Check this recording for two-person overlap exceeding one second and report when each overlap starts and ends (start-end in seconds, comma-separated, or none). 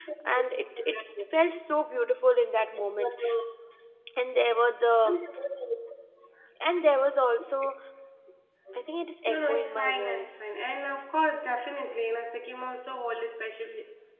9.3-10.5